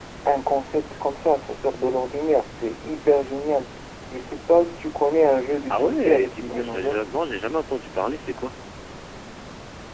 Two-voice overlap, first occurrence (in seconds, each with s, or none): 5.7 s